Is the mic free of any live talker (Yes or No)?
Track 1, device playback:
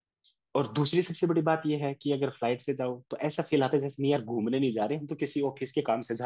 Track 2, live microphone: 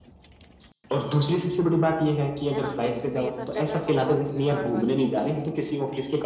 No